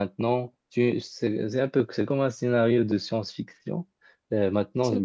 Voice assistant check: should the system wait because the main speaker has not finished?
Yes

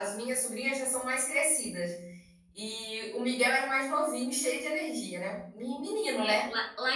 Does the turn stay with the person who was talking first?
No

